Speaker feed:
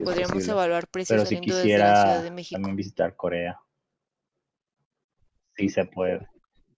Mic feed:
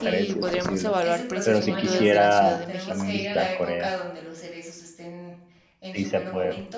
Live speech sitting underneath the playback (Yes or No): Yes